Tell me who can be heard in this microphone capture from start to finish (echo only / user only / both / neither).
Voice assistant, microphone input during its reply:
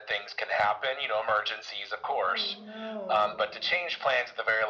both